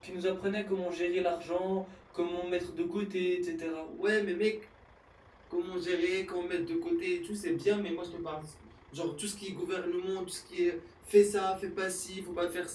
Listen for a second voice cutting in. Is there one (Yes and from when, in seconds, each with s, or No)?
No